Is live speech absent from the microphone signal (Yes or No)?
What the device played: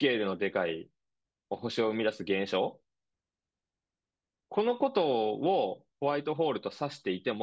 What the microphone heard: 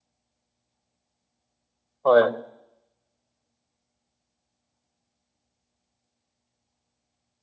No